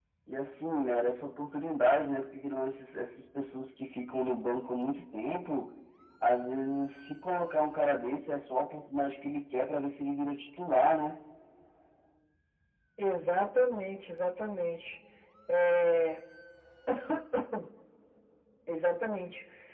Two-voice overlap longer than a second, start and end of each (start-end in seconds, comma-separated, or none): none